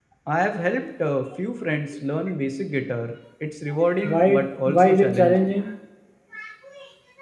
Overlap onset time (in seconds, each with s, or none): 4.0 s